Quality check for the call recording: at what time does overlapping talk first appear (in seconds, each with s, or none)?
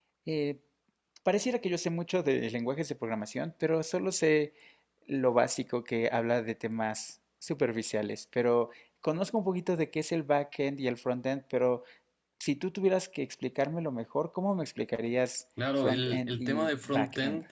15.6 s